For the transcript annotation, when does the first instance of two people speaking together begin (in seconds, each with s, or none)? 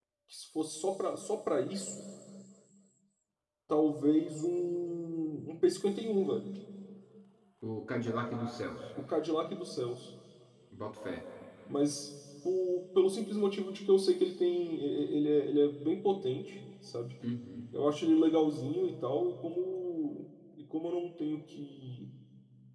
none